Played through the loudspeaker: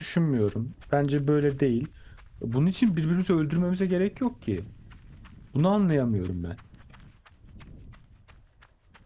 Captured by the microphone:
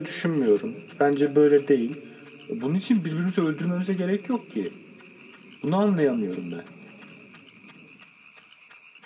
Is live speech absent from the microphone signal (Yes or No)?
Yes